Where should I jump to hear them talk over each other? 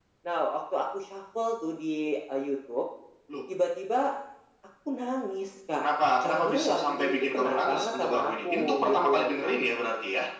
6.2 s

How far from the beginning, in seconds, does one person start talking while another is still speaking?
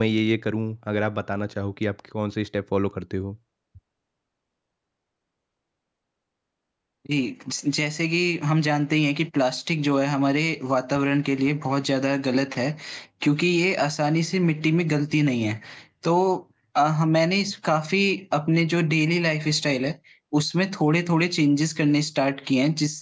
none

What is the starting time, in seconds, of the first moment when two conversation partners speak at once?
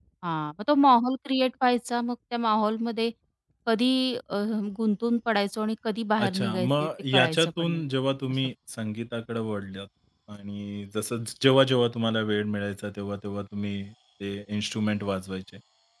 6.2 s

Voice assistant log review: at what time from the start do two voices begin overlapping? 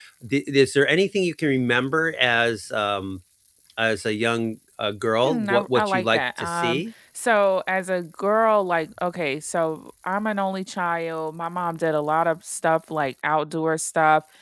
5.2 s

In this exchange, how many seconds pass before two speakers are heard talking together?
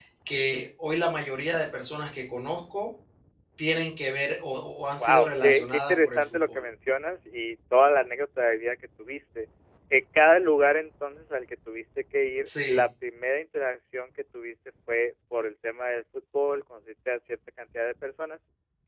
5.0 s

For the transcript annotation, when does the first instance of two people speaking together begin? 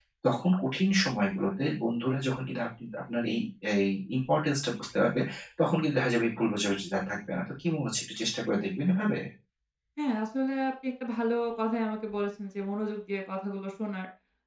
none

